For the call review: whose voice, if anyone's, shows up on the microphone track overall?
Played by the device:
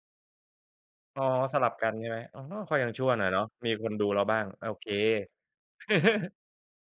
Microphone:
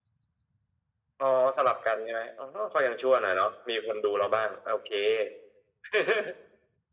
echo only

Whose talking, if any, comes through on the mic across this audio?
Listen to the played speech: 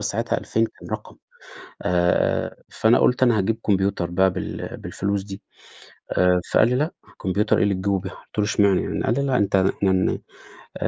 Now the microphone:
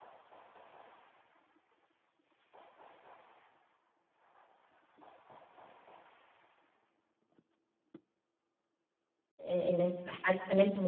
user only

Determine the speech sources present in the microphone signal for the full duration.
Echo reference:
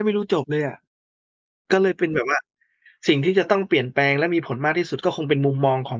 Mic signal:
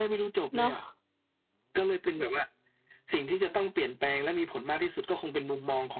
both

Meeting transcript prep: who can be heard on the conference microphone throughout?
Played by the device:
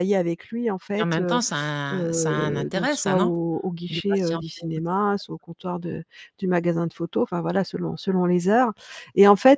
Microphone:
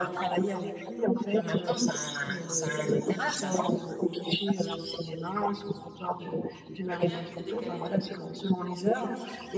both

